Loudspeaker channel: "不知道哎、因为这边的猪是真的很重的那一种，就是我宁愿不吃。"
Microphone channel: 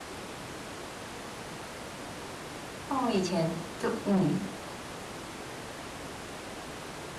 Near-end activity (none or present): present